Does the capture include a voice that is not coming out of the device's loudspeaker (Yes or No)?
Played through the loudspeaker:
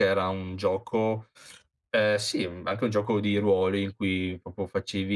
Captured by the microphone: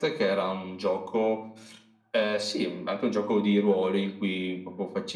No